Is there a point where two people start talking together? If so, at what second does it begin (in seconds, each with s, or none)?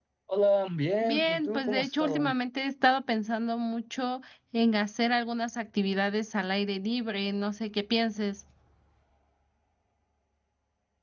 1.0 s